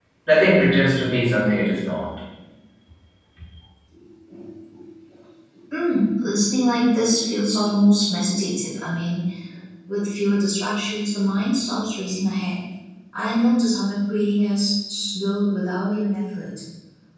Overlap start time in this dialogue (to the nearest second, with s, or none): none